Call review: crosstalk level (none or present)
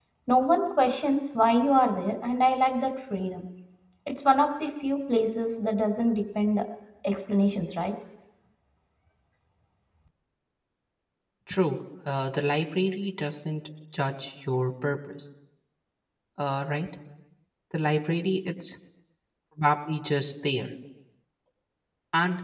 none